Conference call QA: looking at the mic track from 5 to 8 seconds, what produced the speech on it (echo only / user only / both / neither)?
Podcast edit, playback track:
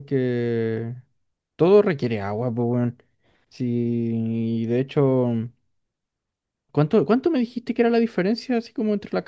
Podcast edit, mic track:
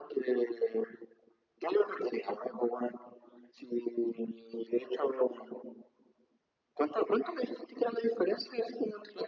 echo only